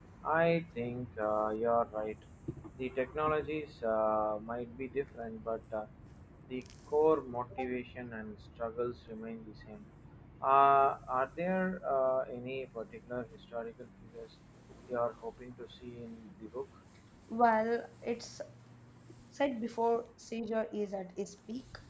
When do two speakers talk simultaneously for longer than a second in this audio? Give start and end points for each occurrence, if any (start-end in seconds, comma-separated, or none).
none